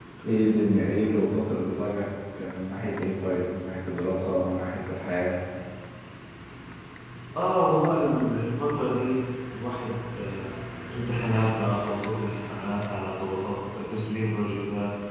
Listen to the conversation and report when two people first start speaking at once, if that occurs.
none

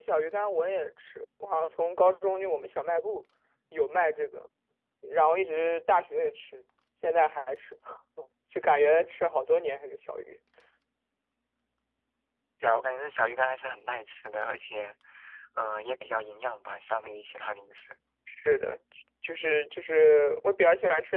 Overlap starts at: none

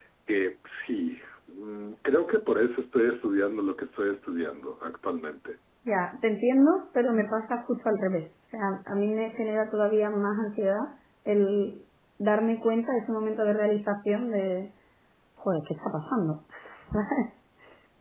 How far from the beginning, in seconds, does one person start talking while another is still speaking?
none

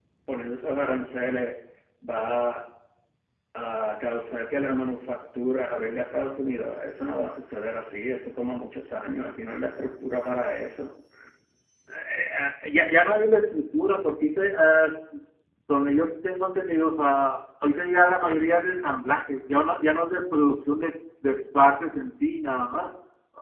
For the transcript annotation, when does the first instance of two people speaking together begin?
none

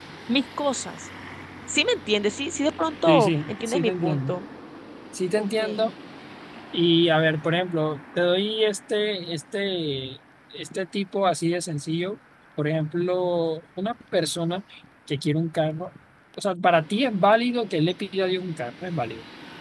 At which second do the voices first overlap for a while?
3.1 s

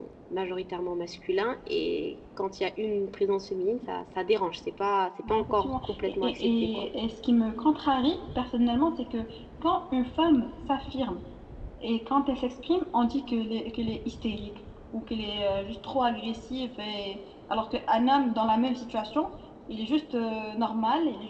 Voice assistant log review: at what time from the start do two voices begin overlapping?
5.2 s

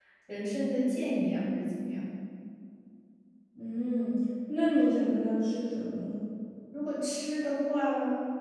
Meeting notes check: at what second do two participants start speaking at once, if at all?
none

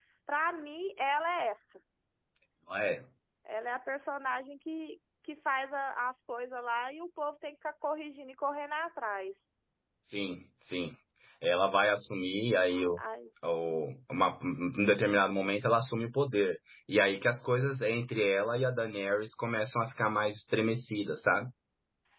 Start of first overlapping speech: none

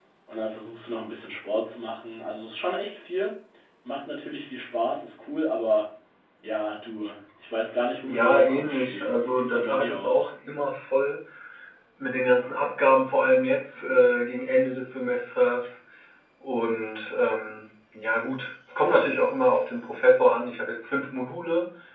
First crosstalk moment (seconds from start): 8.0 s

